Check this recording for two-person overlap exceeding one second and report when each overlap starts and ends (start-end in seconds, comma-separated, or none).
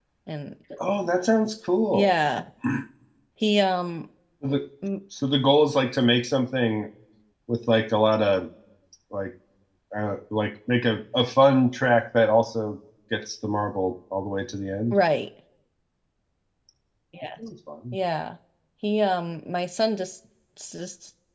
none